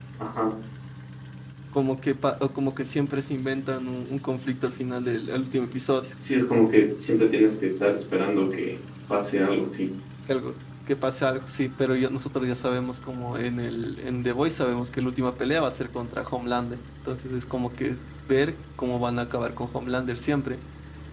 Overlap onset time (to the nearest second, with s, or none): none